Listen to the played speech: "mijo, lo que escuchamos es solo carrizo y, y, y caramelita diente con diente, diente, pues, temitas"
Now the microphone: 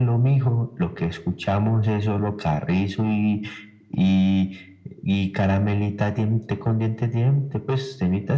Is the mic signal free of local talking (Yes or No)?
Yes